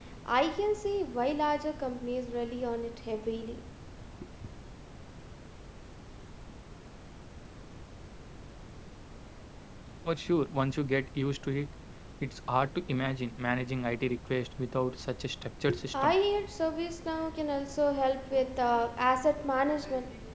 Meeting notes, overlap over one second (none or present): none